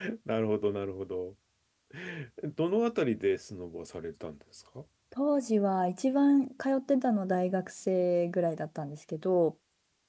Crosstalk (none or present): none